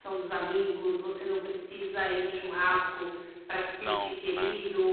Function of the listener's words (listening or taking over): listening